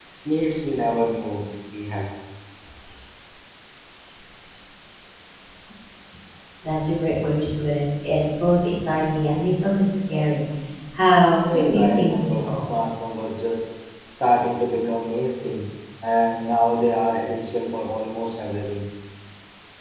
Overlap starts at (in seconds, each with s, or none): 11.4 s